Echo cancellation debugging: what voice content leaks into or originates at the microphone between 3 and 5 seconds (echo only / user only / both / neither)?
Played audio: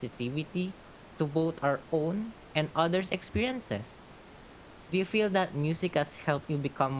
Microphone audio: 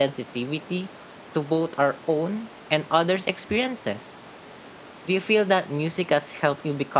echo only